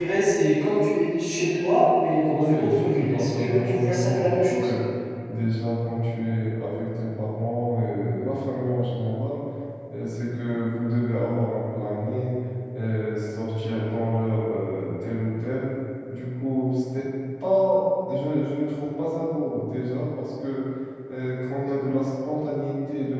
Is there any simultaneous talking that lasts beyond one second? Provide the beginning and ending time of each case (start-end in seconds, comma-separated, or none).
2.3-4.7